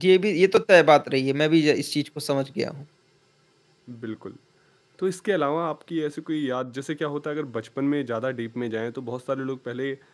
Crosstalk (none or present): none